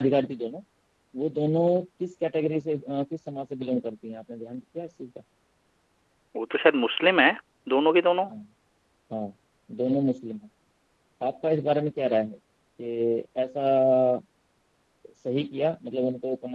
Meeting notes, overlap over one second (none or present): none